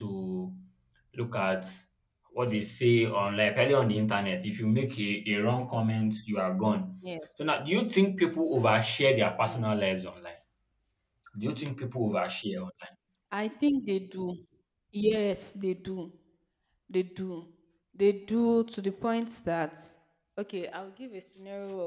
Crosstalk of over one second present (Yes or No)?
No